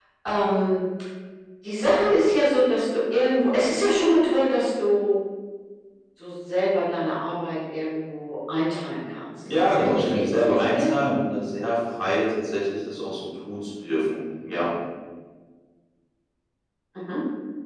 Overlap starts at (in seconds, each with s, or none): 9.4 s